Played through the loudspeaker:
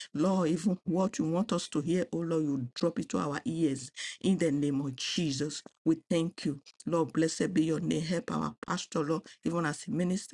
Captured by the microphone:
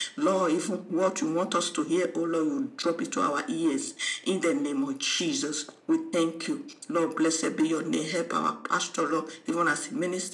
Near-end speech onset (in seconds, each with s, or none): none